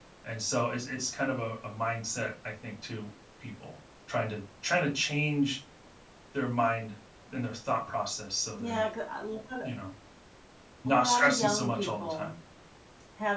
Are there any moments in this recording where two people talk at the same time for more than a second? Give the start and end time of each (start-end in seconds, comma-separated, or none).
10.9-12.3